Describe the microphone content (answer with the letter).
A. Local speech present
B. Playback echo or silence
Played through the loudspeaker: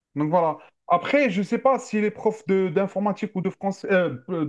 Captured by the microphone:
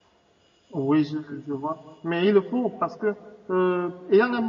A